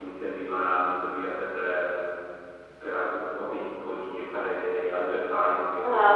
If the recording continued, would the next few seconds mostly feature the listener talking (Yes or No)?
Yes